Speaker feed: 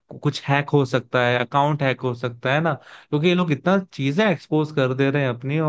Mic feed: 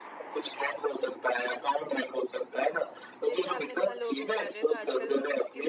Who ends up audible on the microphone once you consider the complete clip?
both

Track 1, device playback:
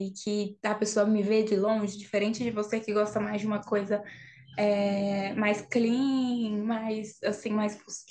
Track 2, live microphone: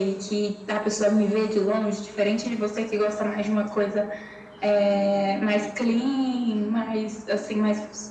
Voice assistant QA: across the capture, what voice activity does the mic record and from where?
echo only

